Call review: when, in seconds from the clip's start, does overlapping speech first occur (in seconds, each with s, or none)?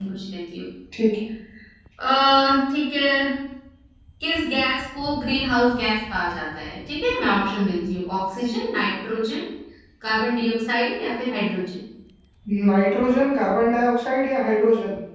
none